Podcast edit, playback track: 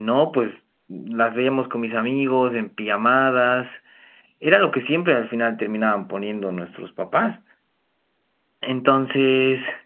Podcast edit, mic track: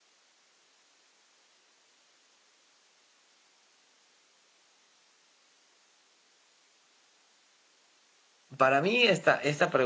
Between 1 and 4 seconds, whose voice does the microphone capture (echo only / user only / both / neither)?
neither